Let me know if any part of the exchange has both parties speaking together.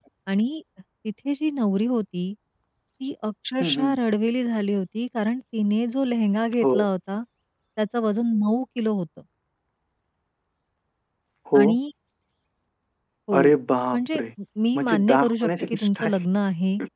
Yes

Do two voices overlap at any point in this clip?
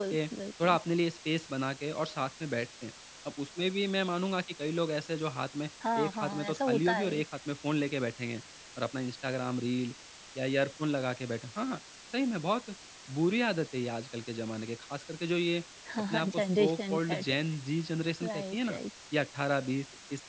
Yes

